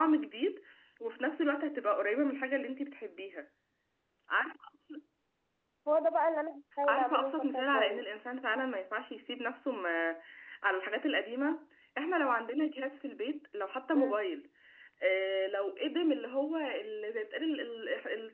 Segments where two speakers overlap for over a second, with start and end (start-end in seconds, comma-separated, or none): 6.8-8.1